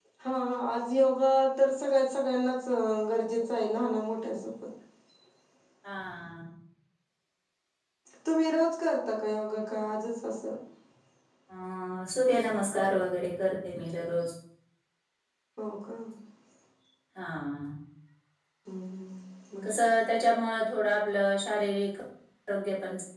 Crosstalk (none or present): none